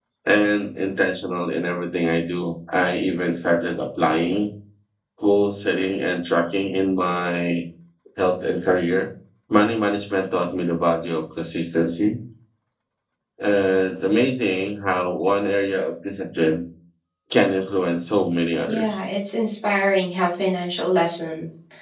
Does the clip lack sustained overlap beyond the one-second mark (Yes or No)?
Yes